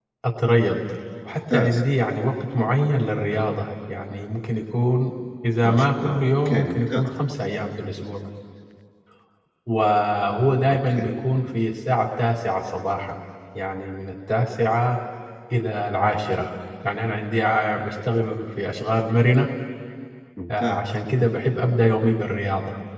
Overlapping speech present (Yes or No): Yes